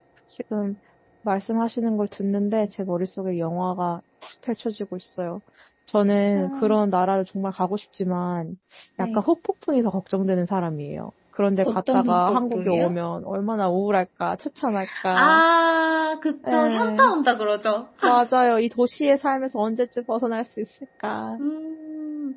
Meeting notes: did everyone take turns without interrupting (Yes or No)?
No